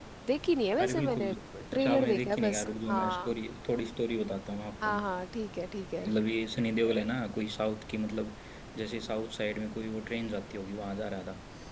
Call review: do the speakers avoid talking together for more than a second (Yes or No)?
No